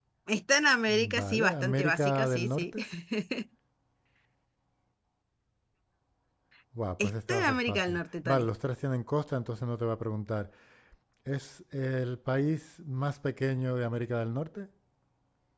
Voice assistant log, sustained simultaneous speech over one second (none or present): present